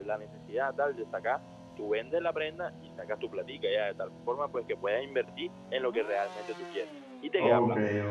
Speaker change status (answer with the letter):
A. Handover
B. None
A